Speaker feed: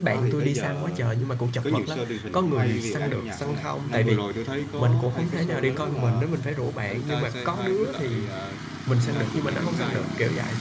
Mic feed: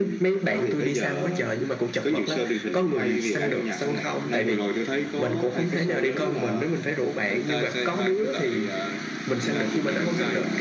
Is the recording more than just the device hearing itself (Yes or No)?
No